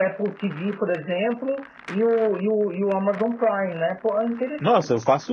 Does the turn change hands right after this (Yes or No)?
Yes